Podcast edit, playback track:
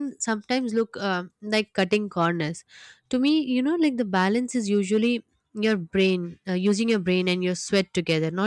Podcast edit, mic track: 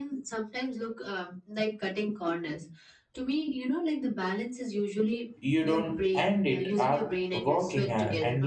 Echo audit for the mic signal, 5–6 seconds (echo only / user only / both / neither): both